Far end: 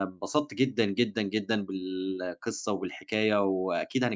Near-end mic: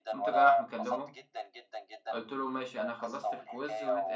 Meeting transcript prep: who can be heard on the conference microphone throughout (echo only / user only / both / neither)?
both